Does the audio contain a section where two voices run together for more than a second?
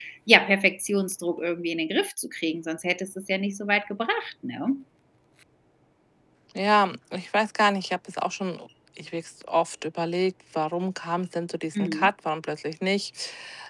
No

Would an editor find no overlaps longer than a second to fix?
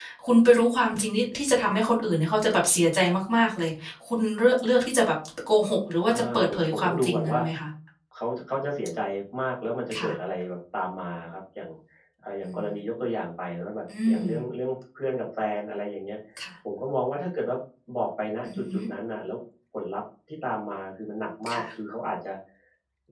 No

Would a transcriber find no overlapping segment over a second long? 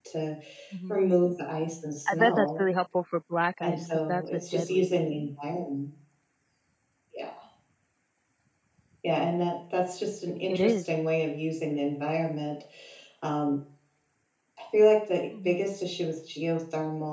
No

